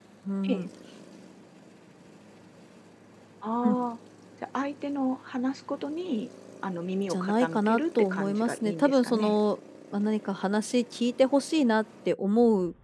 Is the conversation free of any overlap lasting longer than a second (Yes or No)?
No